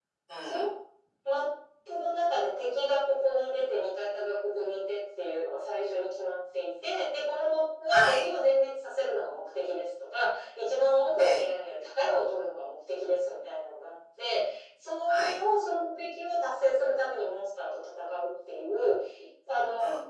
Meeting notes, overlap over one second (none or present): none